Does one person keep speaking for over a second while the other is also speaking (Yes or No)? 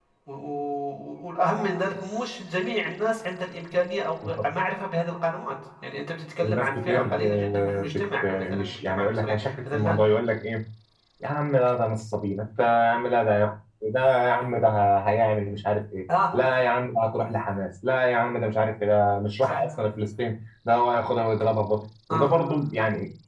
Yes